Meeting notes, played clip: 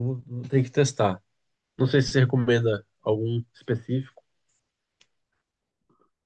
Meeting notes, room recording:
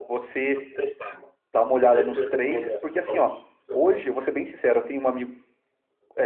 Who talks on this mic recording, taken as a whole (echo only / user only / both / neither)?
both